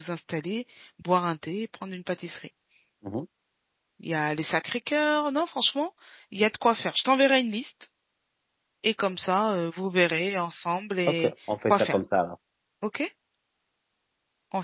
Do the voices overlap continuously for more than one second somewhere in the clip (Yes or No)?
No